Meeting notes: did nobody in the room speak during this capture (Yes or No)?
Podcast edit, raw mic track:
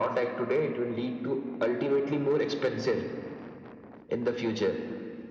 Yes